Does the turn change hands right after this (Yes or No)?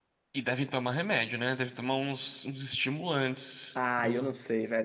Yes